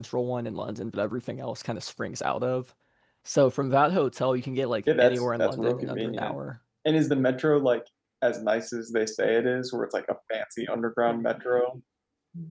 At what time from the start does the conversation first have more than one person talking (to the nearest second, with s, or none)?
5 s